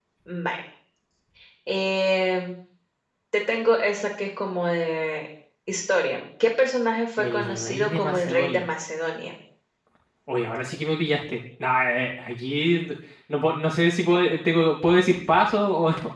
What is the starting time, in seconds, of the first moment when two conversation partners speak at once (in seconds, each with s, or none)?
7.2 s